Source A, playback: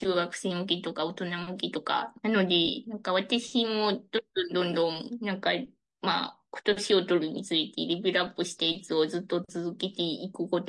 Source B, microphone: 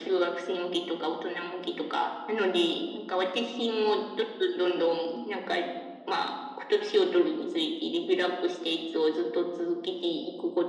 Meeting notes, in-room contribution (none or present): none